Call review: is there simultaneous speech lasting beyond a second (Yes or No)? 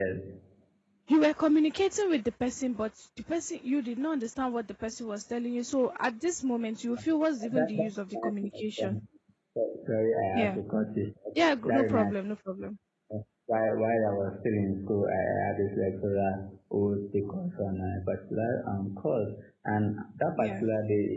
Yes